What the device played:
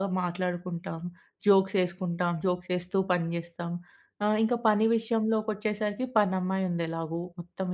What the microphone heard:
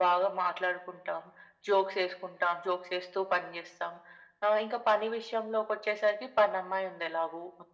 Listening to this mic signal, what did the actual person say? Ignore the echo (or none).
none